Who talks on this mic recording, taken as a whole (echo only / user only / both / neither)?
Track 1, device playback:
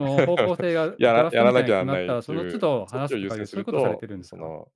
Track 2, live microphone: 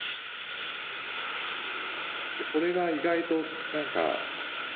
user only